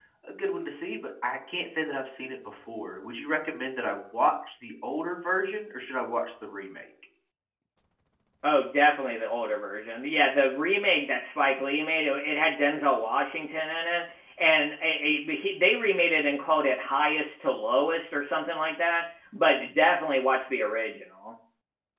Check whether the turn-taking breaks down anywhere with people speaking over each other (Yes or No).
No